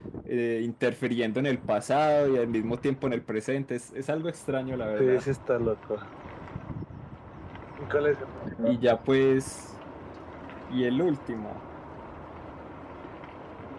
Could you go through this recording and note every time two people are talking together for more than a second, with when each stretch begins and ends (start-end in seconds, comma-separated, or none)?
none